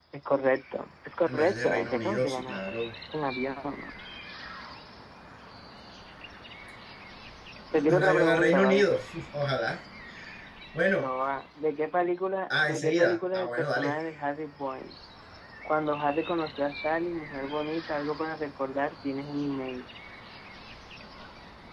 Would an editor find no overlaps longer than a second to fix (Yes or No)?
No